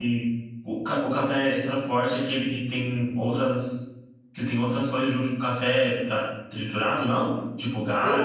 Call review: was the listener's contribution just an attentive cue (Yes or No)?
No